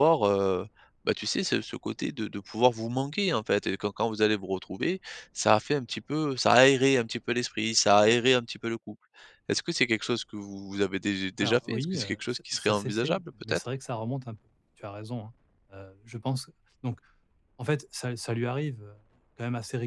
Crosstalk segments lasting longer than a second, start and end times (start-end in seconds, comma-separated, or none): 11.4-13.6